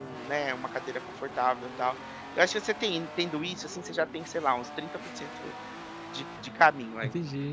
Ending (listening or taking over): listening